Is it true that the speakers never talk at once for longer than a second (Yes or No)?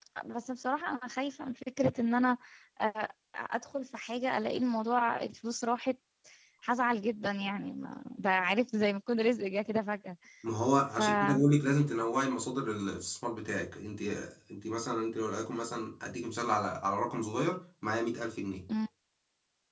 Yes